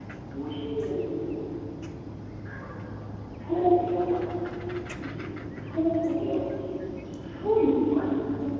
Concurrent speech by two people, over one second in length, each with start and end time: none

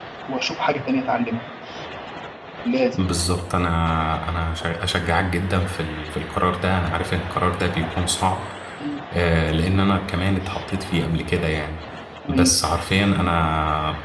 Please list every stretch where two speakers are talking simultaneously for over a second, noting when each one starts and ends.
none

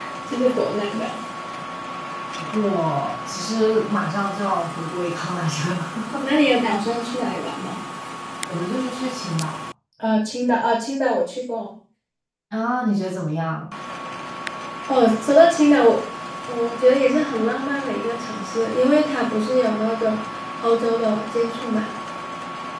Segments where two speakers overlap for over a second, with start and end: none

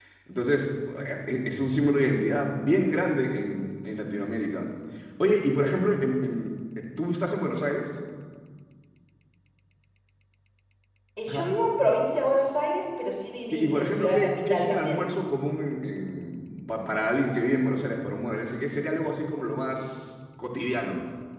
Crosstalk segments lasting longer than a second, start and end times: 13.5-15.0

